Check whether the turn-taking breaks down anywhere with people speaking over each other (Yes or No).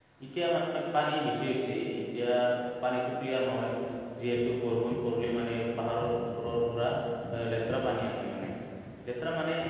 No